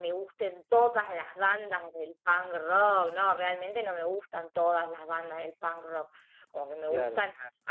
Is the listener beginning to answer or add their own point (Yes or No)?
No